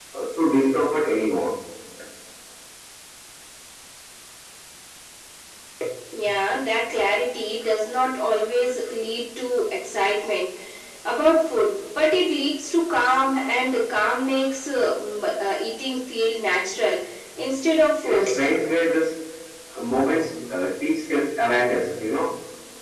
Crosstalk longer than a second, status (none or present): none